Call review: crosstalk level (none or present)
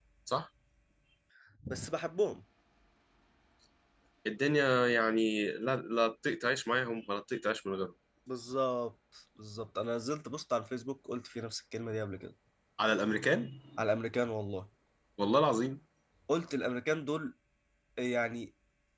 none